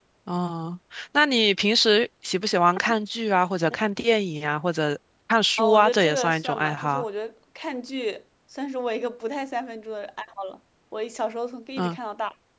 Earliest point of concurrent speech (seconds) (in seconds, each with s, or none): 5.6 s